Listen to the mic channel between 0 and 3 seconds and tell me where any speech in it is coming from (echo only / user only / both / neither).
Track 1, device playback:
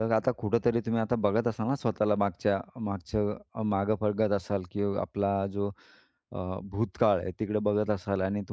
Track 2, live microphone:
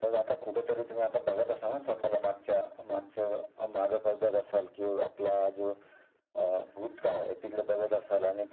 echo only